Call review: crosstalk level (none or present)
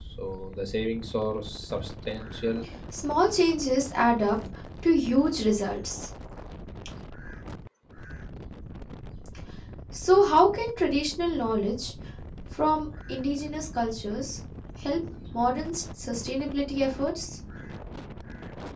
none